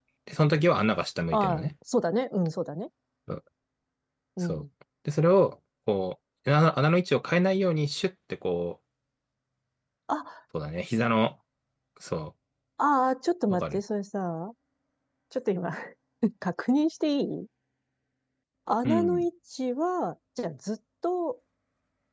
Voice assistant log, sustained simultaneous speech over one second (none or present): none